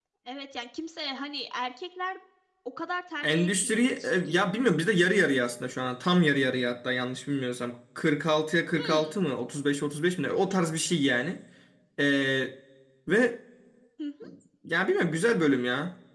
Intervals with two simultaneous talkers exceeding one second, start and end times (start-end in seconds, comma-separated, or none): 3.2-4.5